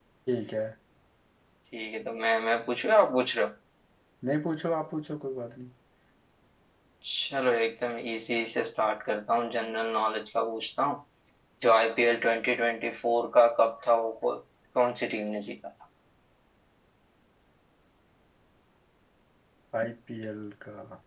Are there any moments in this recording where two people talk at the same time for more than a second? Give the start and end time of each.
none

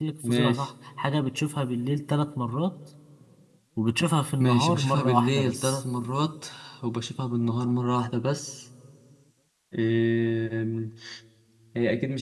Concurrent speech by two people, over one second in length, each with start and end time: 4.4-5.8

